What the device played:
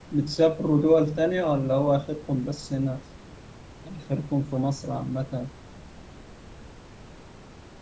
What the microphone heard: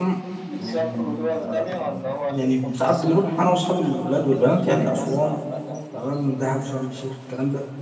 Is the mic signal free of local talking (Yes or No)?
No